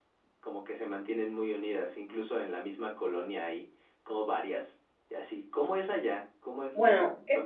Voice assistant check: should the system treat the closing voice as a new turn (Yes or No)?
Yes